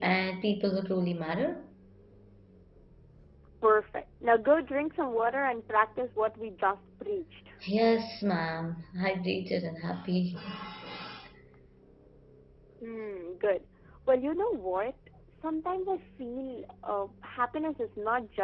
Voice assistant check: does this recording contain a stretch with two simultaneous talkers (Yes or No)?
No